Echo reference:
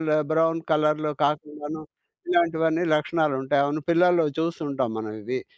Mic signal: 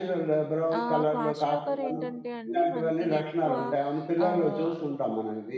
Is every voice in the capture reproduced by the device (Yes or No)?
No